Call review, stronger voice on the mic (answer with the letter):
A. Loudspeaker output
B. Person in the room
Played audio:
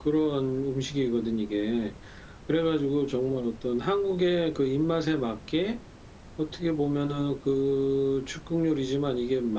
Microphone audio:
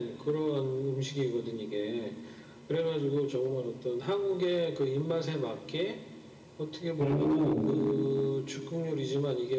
B